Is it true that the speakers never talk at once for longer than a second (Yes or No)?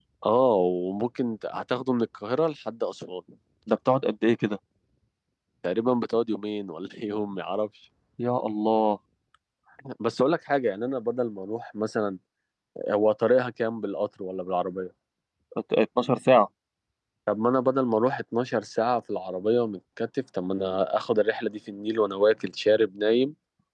Yes